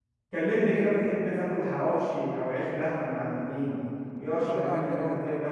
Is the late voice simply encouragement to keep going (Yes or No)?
No